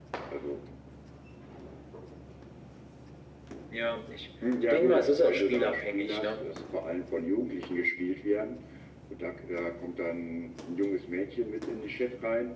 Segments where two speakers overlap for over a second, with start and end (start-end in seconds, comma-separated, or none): 4.7-6.4